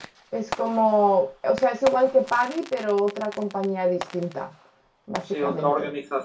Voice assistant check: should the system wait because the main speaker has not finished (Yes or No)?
No